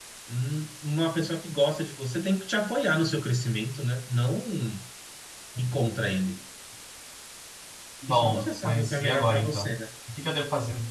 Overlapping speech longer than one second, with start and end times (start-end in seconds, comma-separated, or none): 8.1-9.8